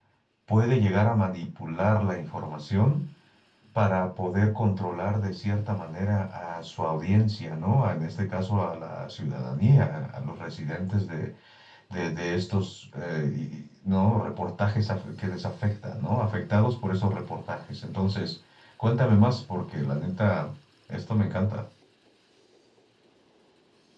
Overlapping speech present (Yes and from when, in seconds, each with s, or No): No